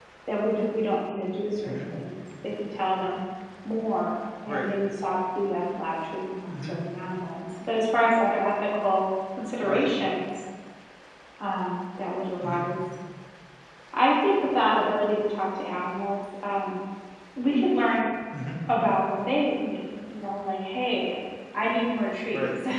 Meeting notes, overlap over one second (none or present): none